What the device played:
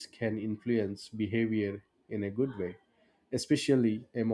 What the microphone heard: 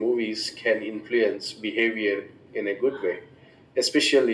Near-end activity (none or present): none